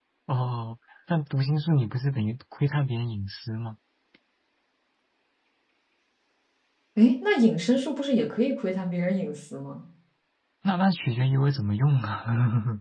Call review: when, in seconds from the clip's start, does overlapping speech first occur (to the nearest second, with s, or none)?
none